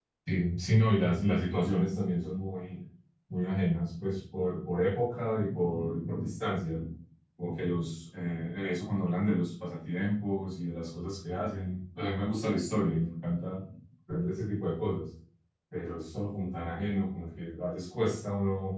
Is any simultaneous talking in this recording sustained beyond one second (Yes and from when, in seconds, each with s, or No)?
No